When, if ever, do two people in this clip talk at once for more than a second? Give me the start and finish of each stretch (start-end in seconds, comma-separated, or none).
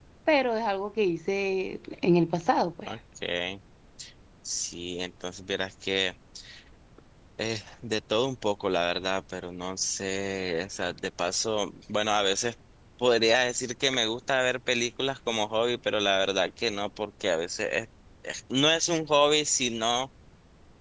none